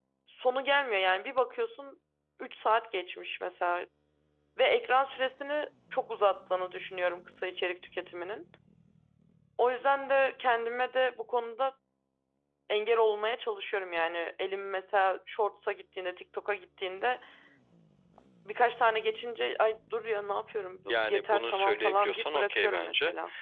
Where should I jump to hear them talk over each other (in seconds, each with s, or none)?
20.9 s